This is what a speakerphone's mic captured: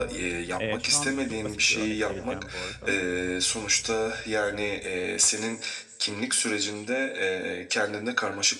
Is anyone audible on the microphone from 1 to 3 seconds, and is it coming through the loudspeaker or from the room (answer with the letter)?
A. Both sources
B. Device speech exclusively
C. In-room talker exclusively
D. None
A